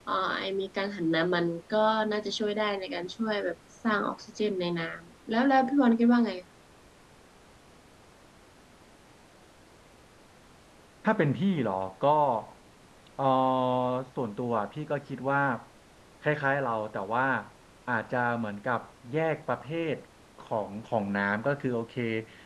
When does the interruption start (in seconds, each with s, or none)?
none